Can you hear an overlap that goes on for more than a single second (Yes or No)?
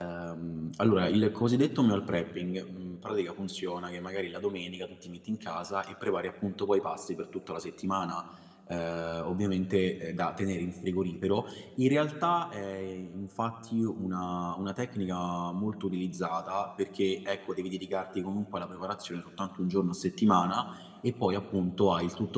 No